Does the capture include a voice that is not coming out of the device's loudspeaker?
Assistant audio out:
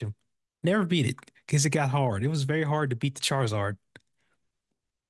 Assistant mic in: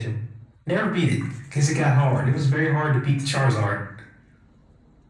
No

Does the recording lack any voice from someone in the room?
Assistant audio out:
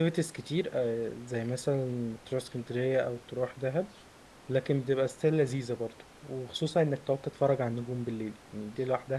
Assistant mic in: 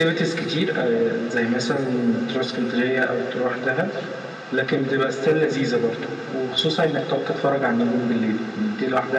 Yes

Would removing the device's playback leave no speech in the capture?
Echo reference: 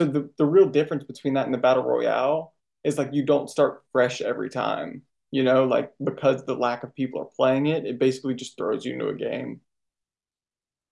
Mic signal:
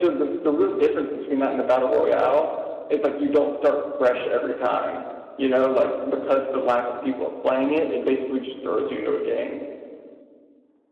Yes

